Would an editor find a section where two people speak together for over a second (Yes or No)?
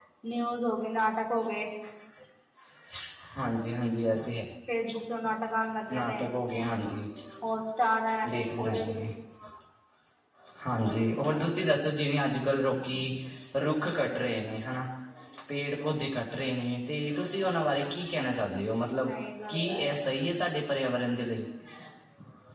No